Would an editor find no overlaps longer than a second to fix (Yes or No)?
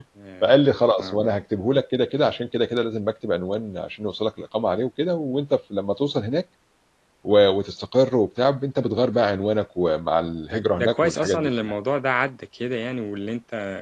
No